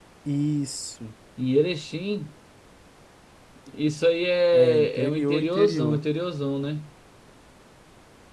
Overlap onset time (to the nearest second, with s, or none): 5 s